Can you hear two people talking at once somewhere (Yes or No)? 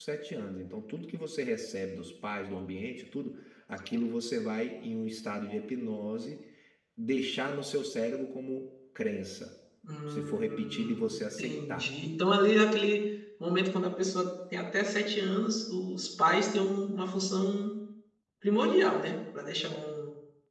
Yes